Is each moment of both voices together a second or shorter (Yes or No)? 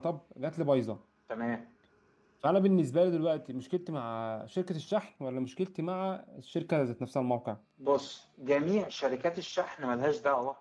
Yes